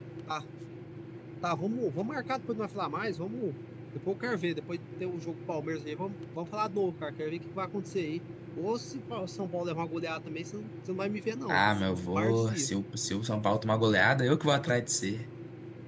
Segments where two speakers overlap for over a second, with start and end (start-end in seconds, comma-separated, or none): 11.5-12.7